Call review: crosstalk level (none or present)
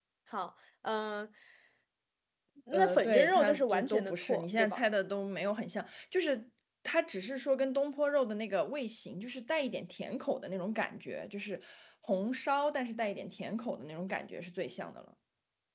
present